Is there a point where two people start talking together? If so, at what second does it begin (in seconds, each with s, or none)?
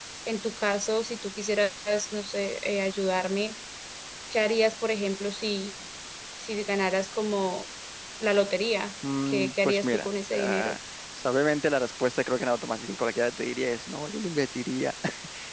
9.3 s